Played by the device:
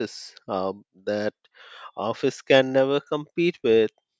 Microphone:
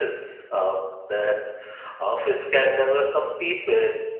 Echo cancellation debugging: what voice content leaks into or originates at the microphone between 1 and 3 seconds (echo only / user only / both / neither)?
echo only